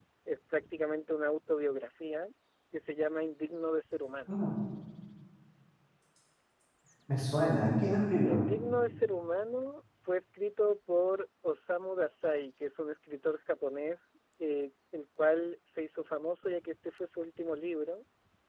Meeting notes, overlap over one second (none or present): none